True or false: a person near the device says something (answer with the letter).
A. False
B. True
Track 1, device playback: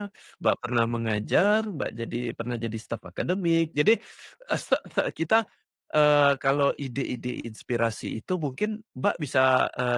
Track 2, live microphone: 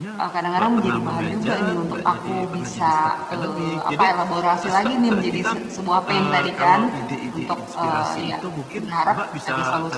B